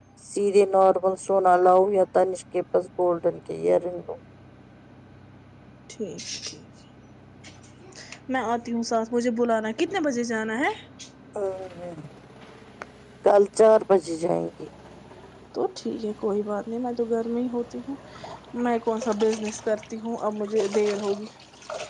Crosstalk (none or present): none